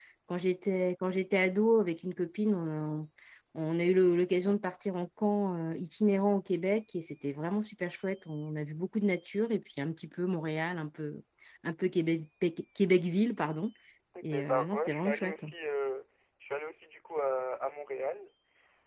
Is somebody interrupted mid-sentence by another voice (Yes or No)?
Yes